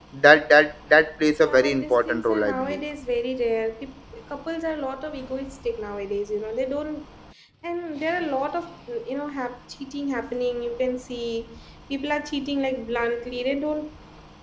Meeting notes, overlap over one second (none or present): present